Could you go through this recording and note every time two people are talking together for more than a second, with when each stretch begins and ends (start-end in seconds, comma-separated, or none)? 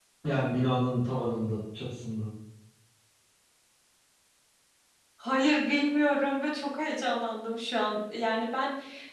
none